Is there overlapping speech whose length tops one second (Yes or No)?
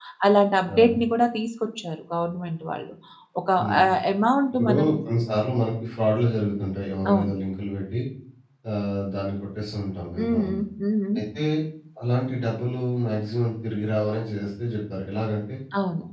No